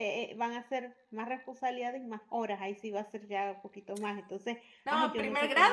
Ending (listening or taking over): taking over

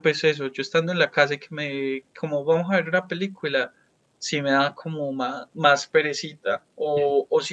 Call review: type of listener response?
listening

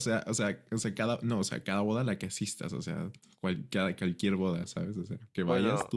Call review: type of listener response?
taking over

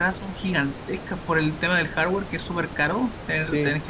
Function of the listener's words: listening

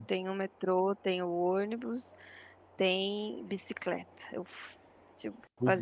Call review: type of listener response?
listening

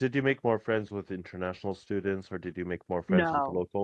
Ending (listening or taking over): taking over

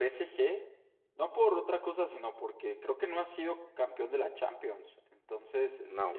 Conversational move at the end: listening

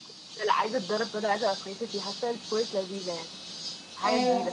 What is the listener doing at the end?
taking over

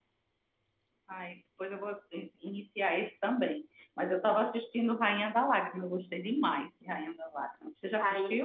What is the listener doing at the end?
taking over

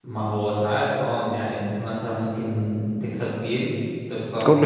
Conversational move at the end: listening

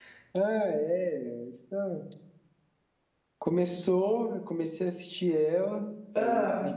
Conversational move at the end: listening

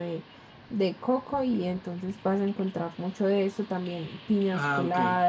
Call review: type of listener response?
listening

